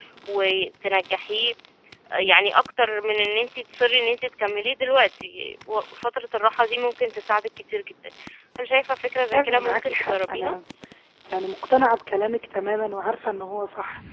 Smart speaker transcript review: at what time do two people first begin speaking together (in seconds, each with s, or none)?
9.3 s